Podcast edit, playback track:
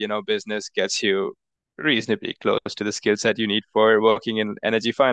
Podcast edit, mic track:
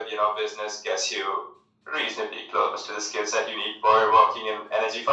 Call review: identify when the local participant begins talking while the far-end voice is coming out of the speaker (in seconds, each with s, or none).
none